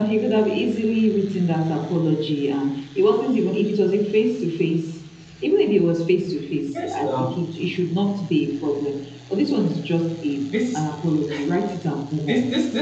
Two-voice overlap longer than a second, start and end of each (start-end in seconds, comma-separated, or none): none